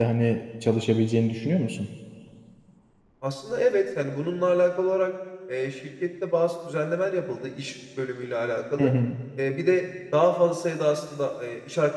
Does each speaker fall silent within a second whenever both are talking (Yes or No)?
Yes